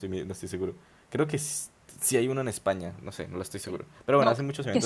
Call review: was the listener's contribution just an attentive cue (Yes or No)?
No